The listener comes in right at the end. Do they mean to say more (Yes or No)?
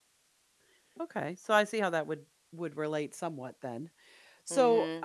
Yes